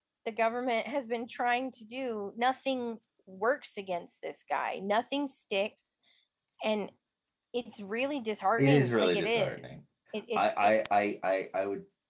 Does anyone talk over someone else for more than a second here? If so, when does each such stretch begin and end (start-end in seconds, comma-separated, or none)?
8.6-9.8